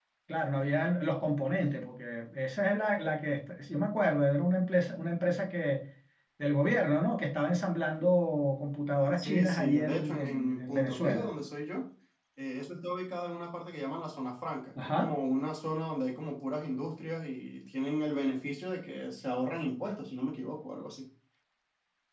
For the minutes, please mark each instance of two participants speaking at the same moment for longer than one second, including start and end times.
9.2-11.3

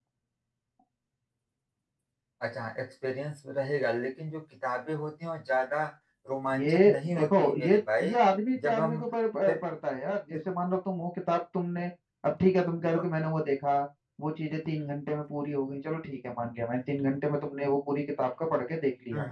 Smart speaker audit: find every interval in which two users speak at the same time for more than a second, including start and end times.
6.5-8.1

